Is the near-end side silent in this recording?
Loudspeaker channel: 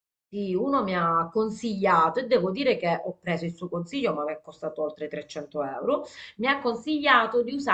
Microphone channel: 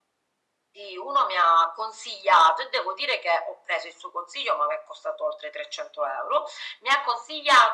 Yes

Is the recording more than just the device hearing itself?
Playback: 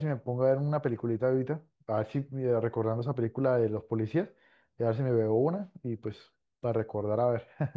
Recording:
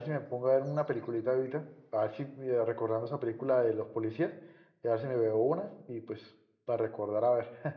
No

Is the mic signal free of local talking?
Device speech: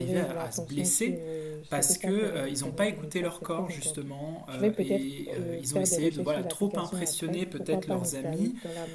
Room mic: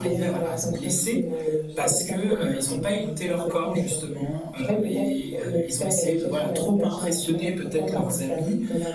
Yes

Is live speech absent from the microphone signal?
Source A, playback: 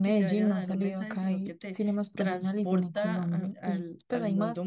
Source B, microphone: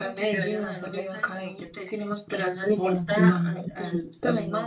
Yes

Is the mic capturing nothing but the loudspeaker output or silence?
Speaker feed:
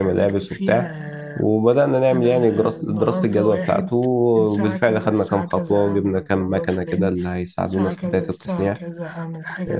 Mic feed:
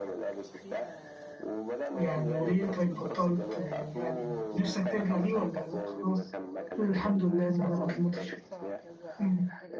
No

